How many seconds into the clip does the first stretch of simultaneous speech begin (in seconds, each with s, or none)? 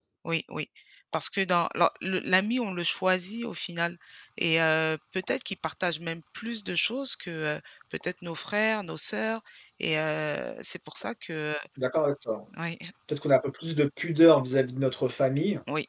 none